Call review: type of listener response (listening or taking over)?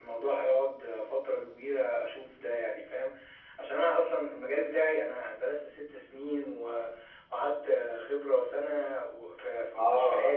taking over